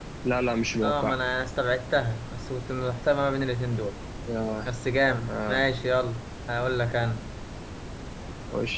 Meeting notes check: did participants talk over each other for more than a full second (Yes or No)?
No